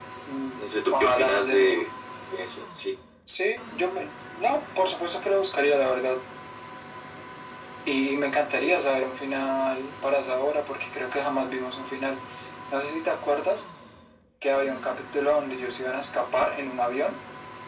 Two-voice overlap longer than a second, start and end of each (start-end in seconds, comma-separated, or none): 0.6-1.8